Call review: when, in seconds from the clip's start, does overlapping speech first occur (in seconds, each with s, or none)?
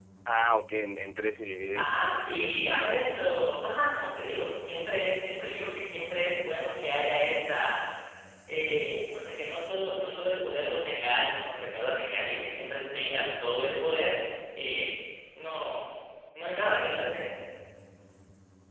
1.8 s